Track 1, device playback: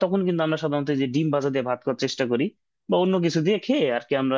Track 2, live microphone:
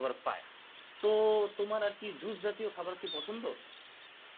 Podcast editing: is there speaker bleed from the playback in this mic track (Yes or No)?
No